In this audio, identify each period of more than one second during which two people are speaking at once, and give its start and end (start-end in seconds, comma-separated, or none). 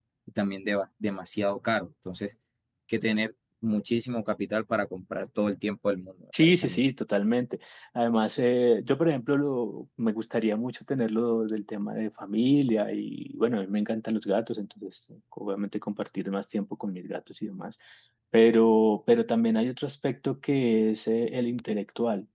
none